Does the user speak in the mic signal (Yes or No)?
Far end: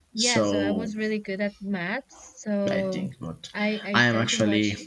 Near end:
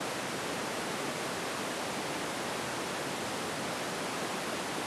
No